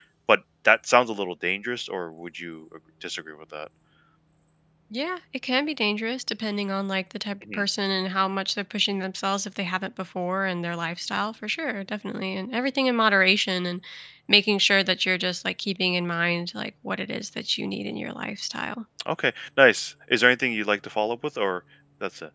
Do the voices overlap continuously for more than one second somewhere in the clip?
No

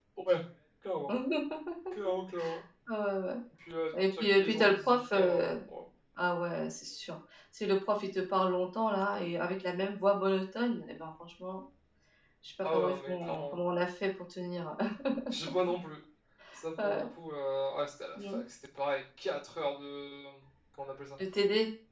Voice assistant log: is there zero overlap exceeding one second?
No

